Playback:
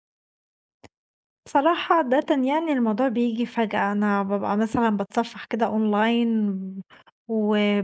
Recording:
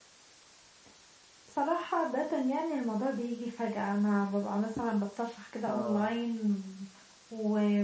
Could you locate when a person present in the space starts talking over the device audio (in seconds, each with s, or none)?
5.7 s